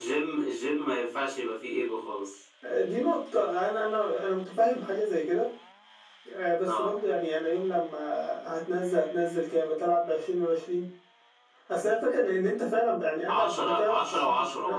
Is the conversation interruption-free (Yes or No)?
No